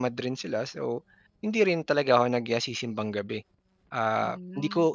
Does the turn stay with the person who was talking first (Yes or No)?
Yes